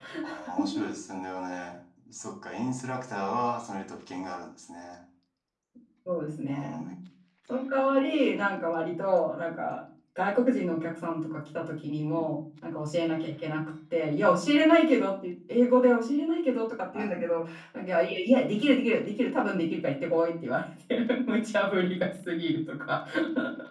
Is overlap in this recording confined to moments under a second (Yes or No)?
Yes